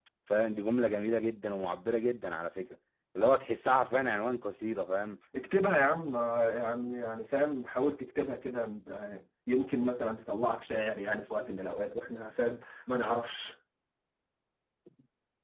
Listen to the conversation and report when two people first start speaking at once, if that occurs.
none

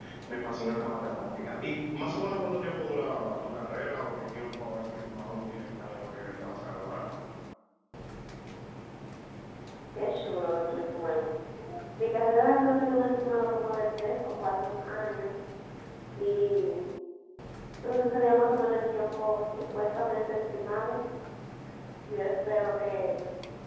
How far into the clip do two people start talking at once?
none

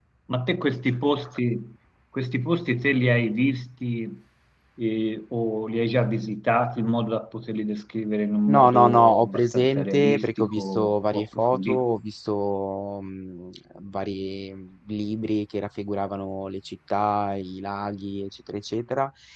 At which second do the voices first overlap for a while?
8.5 s

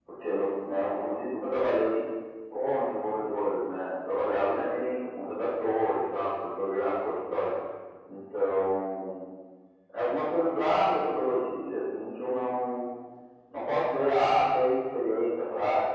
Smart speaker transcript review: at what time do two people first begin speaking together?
none

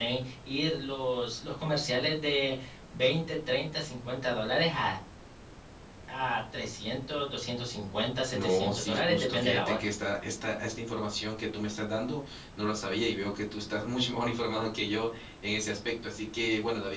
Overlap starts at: 8.3 s

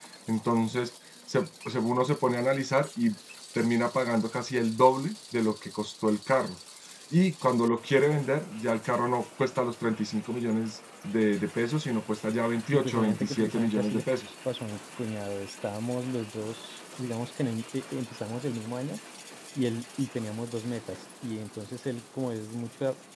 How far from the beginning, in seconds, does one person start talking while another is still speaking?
12.7 s

